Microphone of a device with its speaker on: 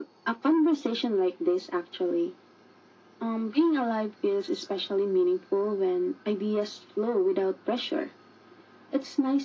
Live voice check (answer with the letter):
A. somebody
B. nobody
B